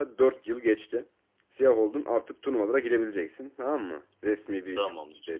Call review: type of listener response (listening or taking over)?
listening